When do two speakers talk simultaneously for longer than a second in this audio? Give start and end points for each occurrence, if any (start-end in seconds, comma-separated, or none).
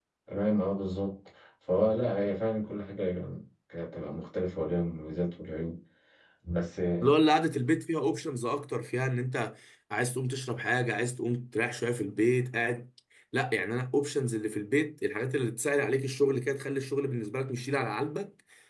none